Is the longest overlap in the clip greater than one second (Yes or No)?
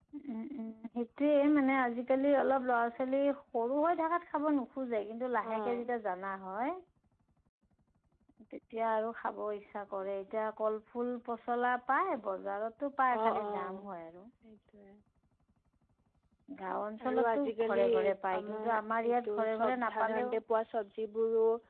Yes